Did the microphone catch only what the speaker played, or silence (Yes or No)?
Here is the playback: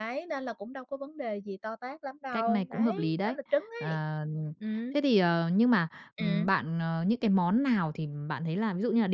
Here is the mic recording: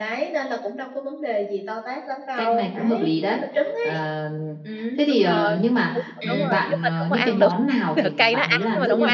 No